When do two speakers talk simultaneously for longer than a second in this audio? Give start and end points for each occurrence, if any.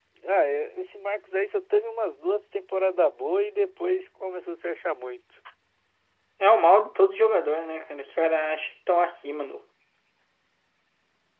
none

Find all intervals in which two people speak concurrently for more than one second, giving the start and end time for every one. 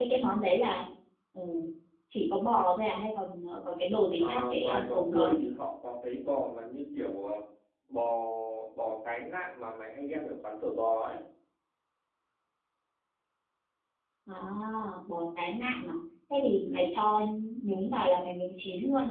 4.1-5.3

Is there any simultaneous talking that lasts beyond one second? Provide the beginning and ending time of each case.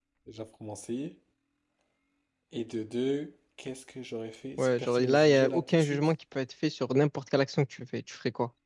4.6-6.0

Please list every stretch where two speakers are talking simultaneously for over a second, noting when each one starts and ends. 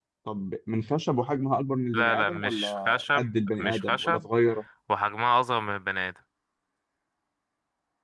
1.9-4.2

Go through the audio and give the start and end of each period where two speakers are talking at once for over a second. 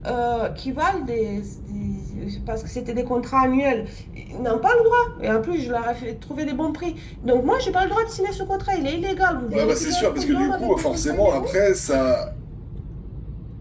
9.4-11.5

